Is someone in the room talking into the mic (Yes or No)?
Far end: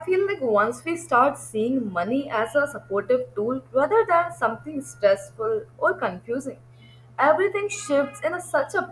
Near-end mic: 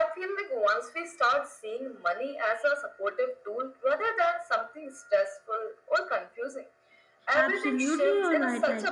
Yes